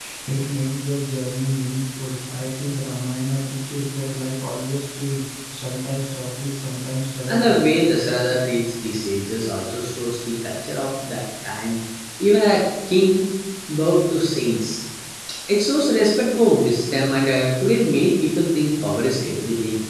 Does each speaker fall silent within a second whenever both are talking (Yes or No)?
Yes